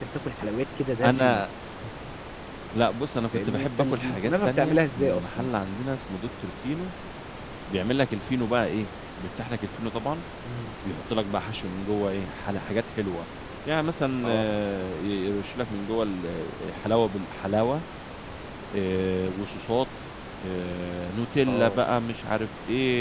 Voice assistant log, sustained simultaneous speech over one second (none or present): present